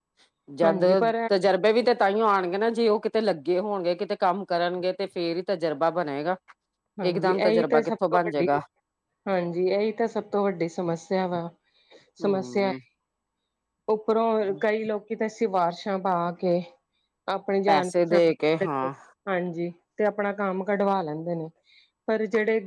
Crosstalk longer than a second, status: present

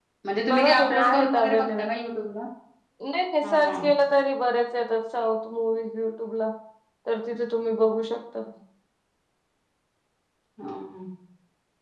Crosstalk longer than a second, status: present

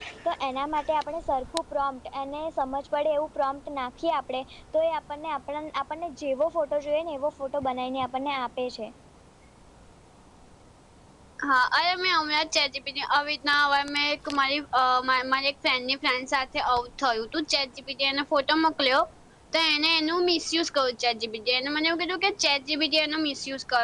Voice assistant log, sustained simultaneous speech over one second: none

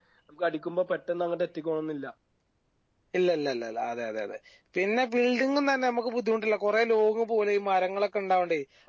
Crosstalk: none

